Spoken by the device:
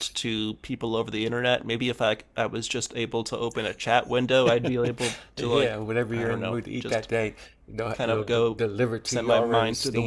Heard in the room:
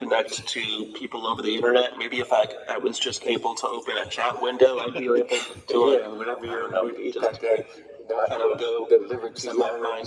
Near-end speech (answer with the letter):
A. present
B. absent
B